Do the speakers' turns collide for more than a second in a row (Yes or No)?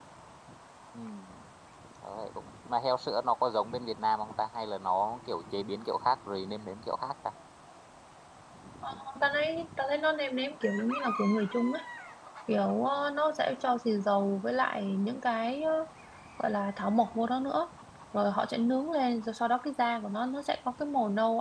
No